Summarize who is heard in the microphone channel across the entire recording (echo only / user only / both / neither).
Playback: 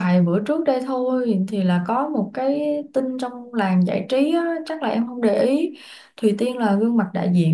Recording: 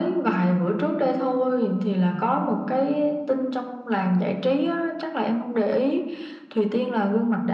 echo only